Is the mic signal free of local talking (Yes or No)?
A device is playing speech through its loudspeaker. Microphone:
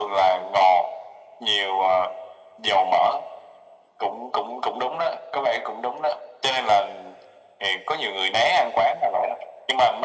Yes